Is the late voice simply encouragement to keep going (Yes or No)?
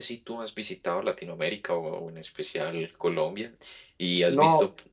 Yes